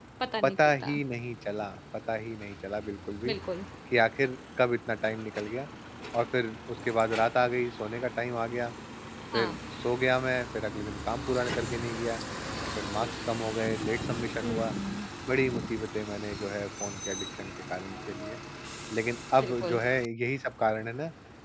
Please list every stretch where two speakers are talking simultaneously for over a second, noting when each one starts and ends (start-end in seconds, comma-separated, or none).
none